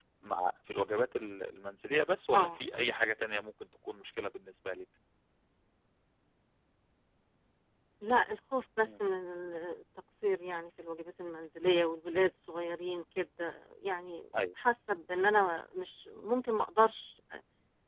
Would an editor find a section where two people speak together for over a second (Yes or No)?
No